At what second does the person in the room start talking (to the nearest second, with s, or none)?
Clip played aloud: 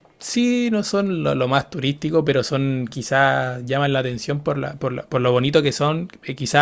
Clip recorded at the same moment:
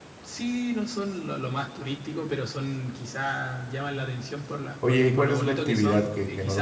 5 s